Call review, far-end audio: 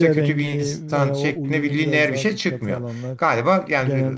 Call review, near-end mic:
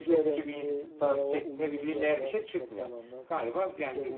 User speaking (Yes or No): No